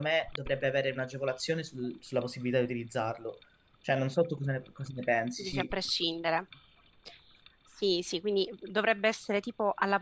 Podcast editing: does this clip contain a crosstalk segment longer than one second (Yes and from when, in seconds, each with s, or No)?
No